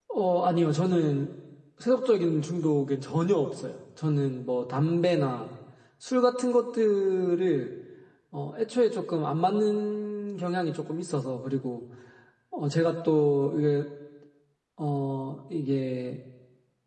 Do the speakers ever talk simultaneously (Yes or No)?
No